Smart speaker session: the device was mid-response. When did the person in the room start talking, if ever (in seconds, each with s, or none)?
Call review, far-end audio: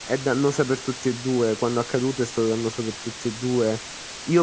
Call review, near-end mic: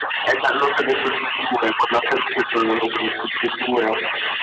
none